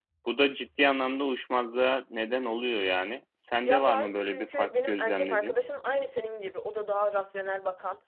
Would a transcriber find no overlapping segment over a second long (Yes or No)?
No